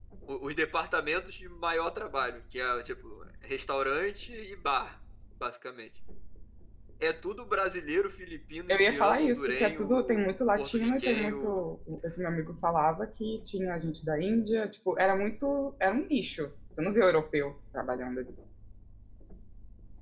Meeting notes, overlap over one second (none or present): present